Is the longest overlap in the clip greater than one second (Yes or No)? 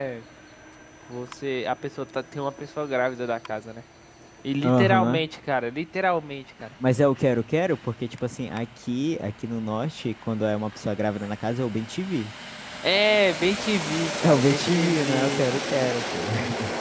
Yes